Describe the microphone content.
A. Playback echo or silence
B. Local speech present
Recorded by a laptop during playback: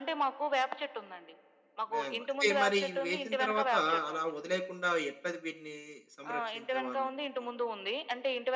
B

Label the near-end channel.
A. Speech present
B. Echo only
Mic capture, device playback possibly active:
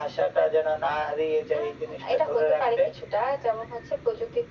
B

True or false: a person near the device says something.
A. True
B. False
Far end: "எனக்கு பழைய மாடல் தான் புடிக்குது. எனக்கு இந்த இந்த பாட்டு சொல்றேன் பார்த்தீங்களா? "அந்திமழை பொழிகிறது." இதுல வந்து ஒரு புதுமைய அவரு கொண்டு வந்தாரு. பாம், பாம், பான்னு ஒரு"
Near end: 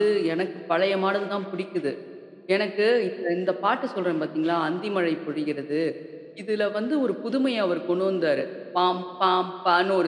B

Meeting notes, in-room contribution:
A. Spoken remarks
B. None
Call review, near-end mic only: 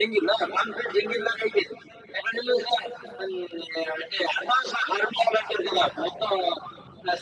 B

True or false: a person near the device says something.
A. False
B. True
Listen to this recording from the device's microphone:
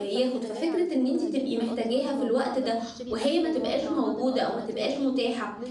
B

